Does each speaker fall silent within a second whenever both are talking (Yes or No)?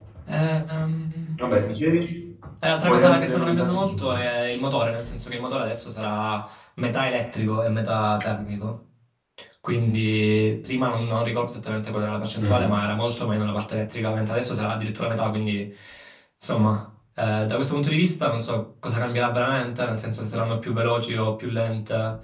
No